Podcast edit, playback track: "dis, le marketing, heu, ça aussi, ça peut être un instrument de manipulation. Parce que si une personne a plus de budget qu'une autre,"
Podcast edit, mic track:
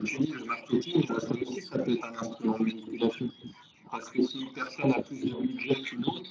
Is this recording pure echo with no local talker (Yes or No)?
Yes